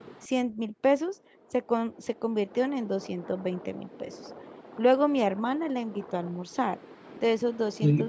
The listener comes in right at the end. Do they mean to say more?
No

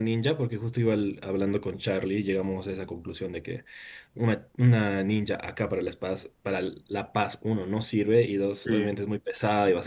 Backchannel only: Yes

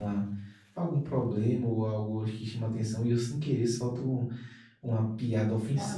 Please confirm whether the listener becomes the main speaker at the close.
No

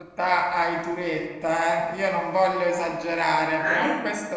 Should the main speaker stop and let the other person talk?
No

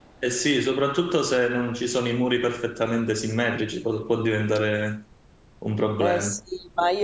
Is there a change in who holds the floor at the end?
Yes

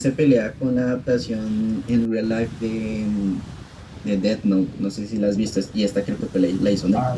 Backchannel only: No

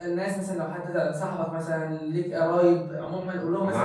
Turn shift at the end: Yes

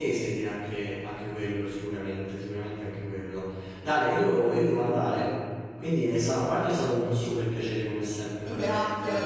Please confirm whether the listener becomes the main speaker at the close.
Yes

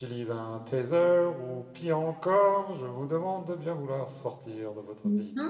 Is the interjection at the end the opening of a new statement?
Yes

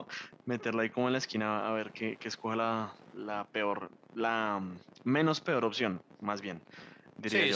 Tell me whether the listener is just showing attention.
No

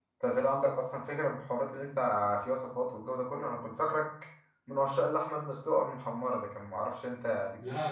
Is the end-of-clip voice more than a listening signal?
Yes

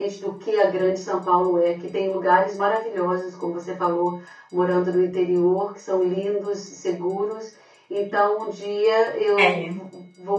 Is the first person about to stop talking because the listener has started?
No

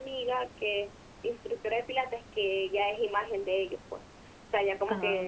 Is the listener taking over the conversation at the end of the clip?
No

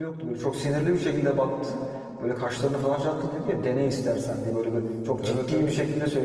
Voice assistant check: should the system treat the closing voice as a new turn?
No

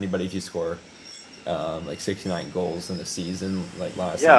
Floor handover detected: Yes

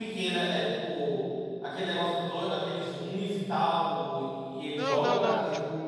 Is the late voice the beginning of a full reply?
Yes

